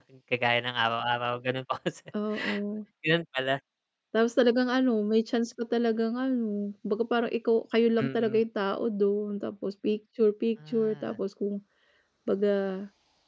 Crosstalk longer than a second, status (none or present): none